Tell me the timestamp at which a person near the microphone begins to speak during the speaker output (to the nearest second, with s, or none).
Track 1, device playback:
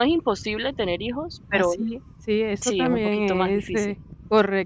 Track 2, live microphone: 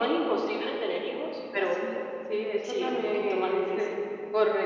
none